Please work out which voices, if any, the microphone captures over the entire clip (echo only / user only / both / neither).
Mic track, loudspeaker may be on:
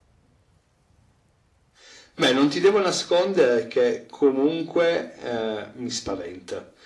echo only